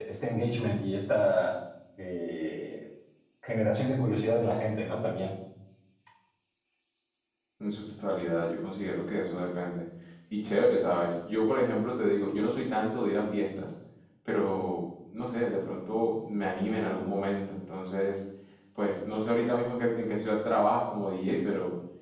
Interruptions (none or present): none